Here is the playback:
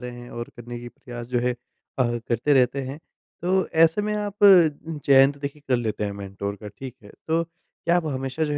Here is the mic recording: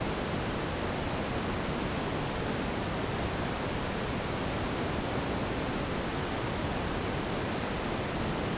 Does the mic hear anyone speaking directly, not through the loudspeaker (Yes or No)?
No